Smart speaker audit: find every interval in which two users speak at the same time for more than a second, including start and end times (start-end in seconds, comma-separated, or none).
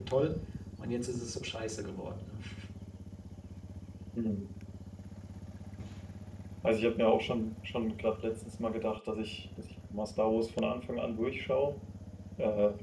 none